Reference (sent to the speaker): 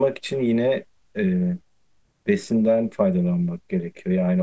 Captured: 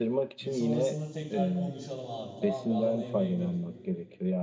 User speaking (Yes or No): Yes